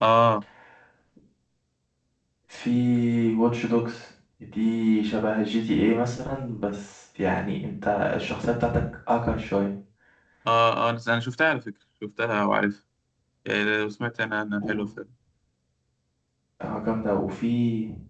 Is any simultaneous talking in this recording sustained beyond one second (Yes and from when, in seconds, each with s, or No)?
No